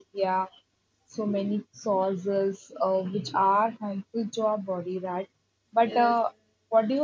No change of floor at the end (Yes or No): Yes